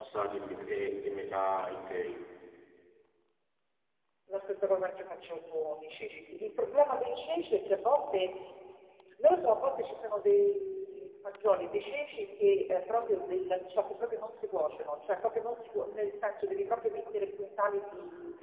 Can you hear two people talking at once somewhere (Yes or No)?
No